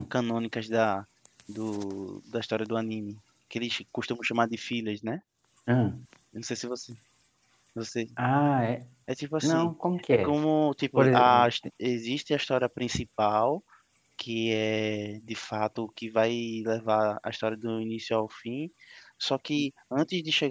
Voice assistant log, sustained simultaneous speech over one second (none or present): none